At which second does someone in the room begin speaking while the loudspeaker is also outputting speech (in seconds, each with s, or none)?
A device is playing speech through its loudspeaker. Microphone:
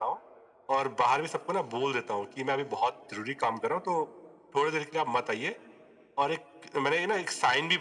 none